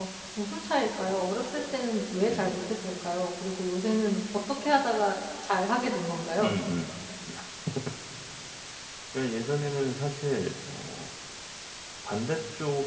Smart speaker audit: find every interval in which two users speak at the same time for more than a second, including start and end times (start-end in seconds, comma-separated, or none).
none